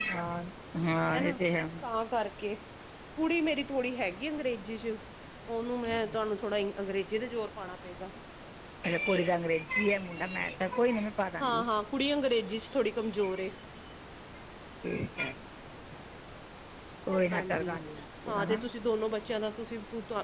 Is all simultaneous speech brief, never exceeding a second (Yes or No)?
Yes